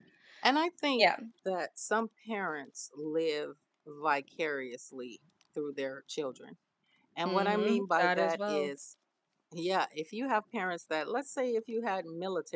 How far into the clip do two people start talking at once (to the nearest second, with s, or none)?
7 s